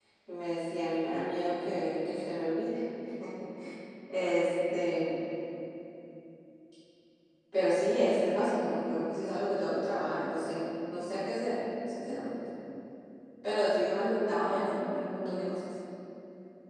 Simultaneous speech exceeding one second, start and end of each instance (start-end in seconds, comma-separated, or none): 14.0-15.5